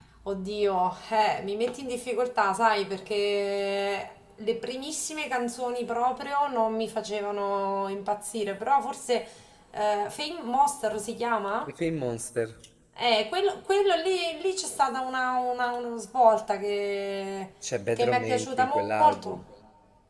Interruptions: present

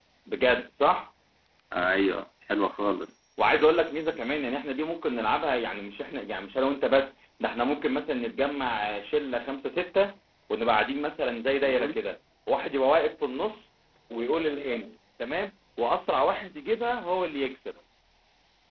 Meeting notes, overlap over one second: none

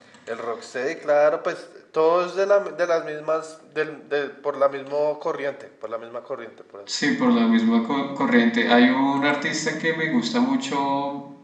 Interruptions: none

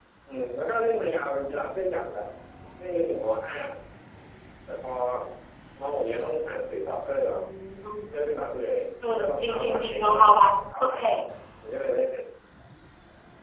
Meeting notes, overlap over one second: present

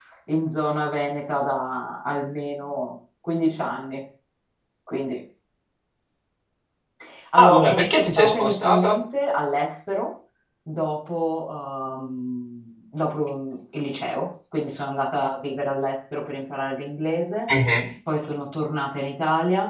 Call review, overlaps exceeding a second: present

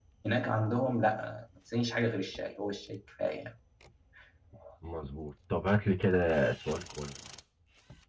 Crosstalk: none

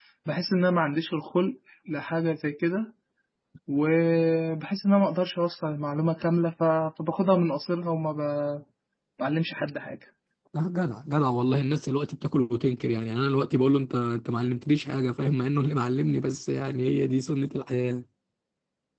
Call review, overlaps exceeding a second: none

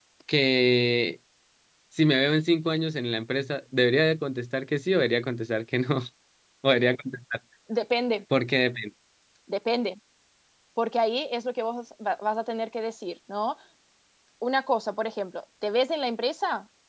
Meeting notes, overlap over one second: none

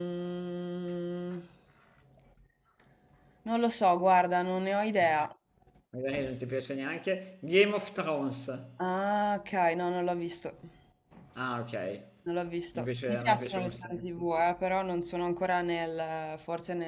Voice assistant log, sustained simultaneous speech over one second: present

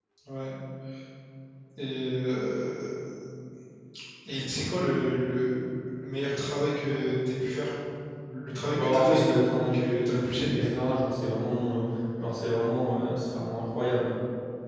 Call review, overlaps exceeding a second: present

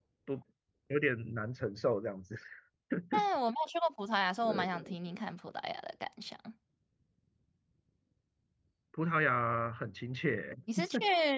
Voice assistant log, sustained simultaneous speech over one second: none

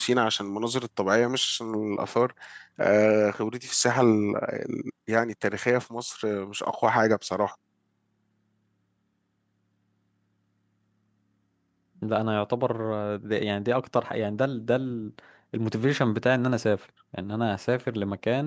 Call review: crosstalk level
none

